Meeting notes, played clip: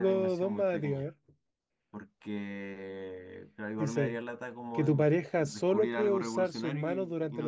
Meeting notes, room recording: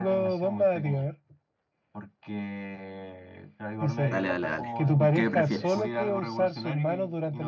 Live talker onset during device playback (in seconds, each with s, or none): 4.0 s